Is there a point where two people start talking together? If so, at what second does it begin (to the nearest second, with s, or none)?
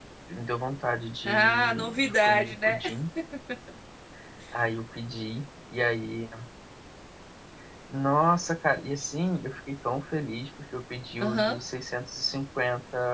1 s